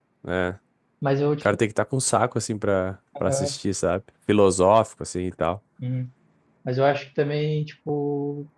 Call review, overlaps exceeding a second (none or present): none